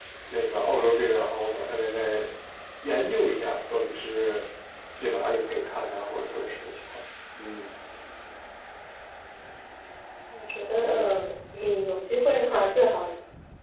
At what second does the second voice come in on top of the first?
none

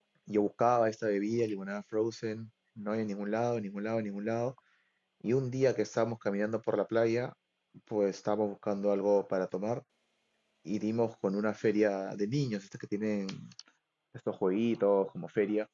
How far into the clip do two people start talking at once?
none

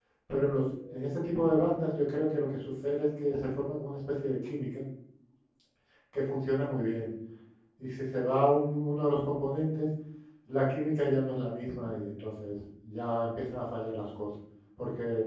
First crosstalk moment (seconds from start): none

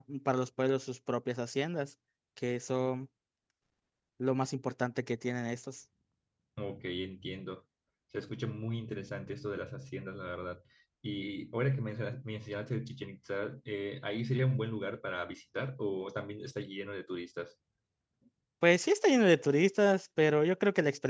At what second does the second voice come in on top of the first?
none

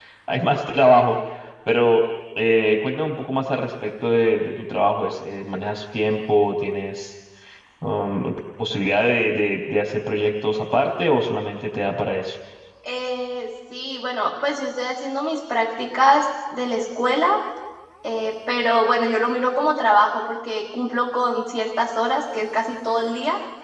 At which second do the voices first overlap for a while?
none

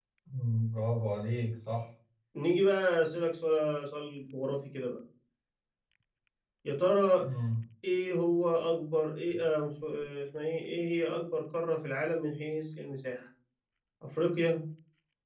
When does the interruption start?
none

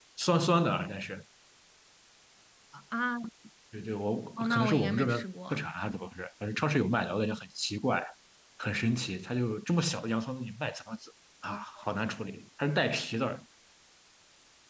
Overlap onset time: 4 s

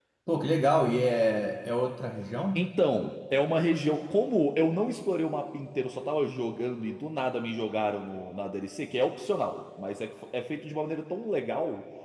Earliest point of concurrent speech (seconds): none

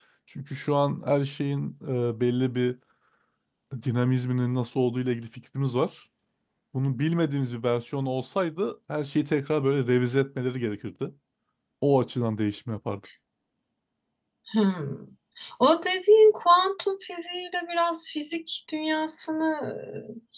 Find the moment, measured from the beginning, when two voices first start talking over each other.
none

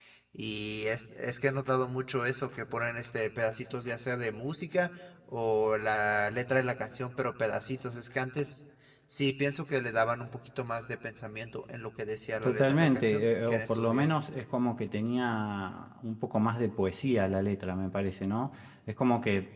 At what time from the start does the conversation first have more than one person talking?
12 s

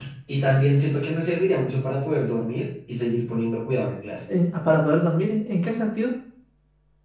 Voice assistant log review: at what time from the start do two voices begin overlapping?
none

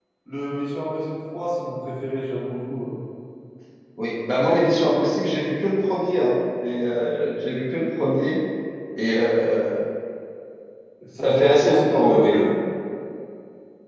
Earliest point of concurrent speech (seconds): 11 s

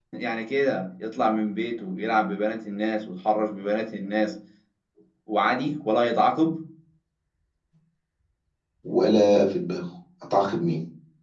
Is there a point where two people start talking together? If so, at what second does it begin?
none

